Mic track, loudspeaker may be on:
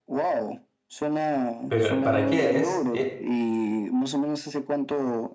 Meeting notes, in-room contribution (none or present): present